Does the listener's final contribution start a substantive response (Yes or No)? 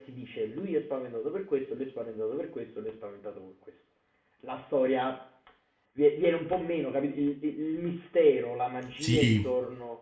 No